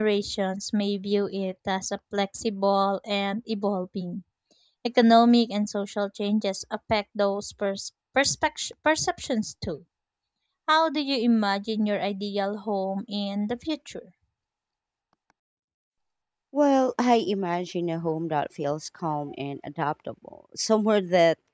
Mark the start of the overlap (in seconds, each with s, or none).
none